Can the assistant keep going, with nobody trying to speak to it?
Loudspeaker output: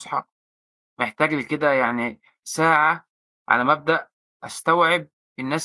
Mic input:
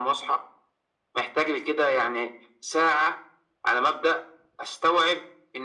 Yes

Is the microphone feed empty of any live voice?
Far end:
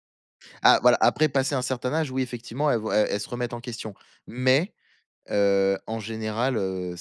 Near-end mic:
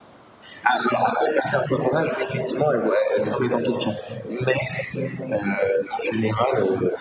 Yes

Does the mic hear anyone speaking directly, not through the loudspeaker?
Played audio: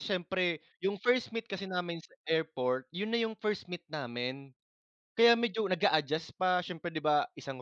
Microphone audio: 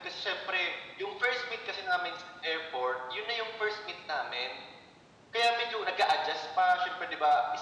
No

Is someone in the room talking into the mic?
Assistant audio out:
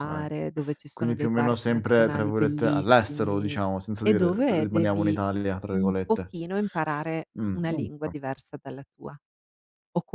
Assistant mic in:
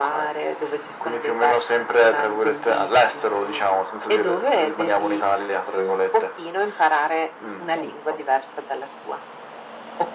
No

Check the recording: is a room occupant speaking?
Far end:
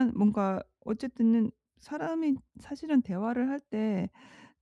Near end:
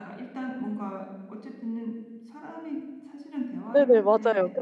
Yes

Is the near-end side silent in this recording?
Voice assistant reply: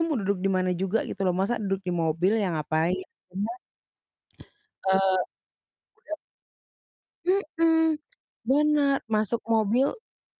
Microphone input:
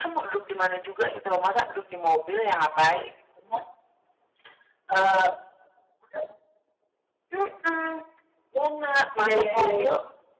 No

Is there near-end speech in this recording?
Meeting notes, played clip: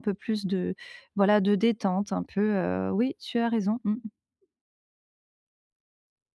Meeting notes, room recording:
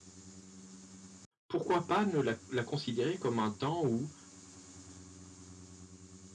Yes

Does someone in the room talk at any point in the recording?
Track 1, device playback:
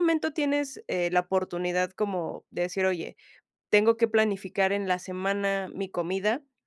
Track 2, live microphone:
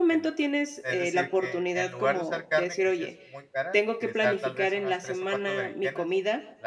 Yes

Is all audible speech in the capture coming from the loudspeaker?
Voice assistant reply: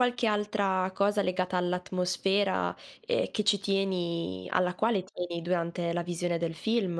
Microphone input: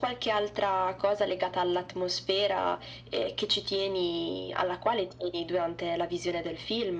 Yes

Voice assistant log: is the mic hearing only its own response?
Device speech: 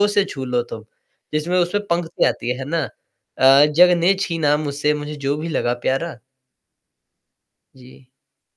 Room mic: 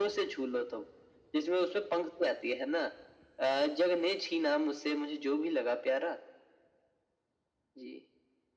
Yes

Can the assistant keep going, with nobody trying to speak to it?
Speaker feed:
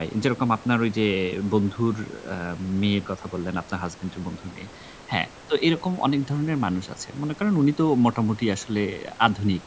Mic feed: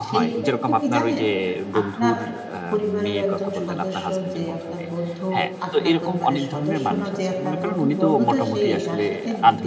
No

